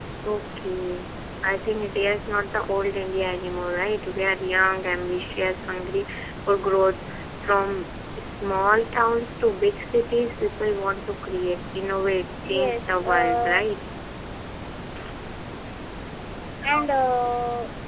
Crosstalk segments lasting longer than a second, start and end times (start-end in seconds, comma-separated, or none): 12.4-13.6